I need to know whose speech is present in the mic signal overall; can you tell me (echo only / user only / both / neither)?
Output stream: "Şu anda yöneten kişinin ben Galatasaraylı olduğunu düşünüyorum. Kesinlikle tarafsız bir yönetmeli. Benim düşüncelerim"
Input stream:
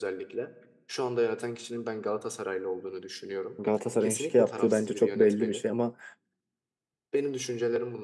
both